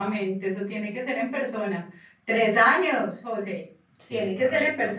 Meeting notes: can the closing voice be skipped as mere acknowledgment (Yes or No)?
Yes